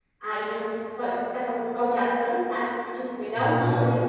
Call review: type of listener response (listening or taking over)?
listening